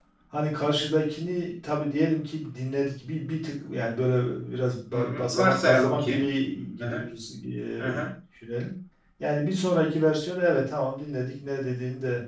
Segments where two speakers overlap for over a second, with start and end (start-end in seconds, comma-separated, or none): 4.9-6.2